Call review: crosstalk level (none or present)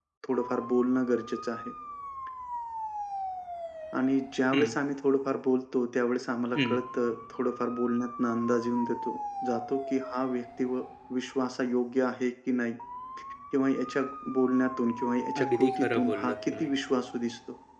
present